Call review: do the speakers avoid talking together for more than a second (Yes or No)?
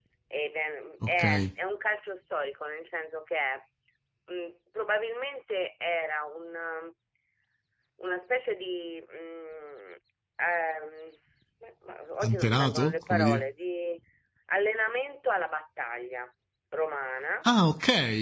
No